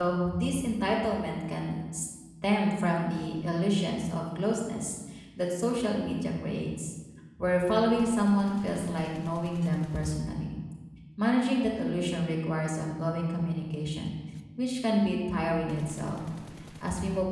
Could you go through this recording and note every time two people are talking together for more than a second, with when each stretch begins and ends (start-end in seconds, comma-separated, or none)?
none